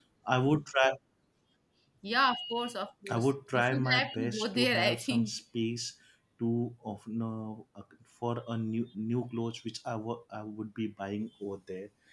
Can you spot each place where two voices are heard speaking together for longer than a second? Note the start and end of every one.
3.1-5.3

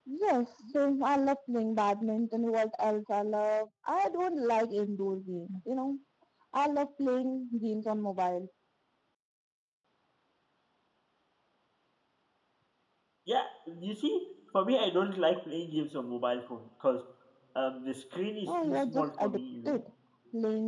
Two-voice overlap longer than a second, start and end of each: 18.4-19.8

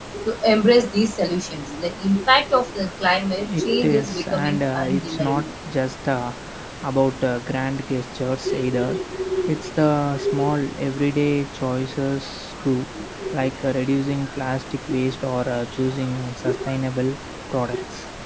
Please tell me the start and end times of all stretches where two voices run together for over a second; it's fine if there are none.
3.4-5.4

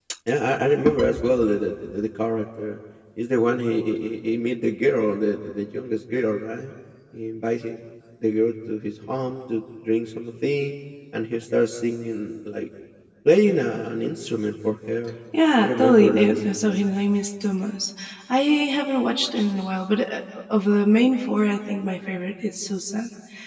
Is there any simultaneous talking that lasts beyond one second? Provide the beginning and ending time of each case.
15.6-16.9

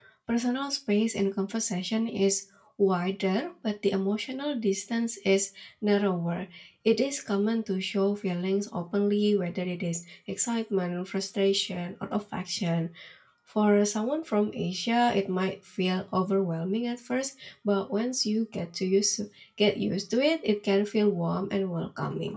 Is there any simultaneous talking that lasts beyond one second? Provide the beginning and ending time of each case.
none

